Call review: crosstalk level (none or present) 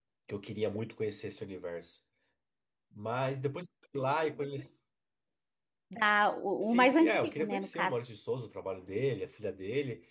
present